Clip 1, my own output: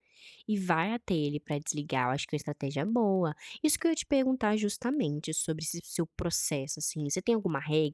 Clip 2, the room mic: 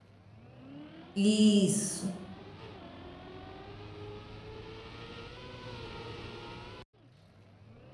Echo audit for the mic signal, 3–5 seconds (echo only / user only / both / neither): neither